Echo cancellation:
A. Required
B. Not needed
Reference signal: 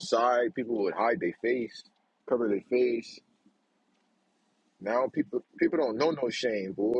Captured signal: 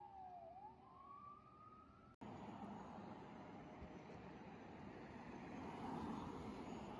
B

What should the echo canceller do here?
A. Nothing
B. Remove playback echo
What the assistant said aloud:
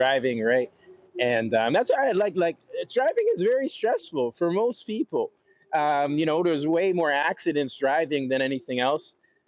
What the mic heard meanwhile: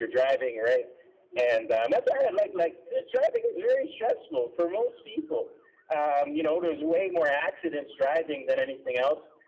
B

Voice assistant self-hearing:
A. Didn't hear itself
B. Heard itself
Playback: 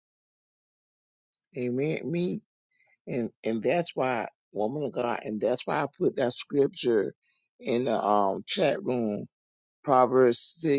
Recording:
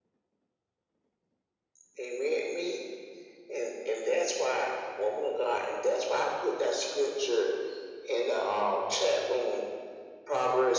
B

